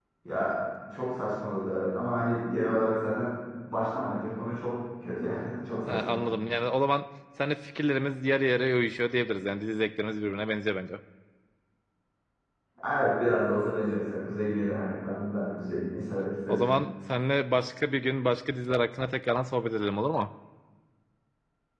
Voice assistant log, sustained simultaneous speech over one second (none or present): none